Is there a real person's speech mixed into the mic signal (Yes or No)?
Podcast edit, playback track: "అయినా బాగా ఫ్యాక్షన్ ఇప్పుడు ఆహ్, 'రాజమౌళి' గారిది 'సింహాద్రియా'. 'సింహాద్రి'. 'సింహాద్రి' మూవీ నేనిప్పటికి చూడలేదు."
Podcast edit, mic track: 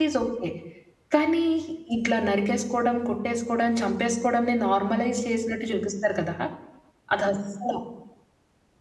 Yes